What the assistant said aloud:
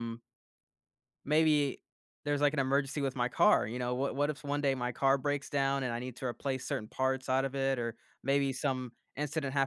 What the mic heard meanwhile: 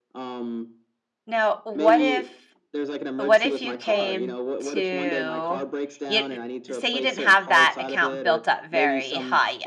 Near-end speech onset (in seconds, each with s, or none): 1.3 s